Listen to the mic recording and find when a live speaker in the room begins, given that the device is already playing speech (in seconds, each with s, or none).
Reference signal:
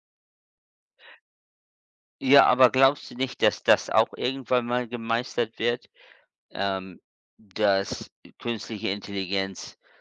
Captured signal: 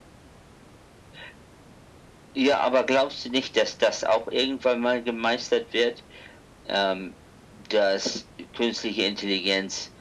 none